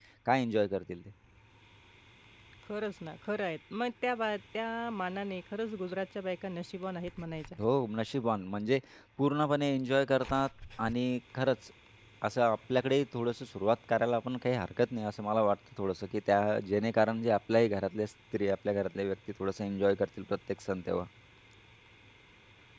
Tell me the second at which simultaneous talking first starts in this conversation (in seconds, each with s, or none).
none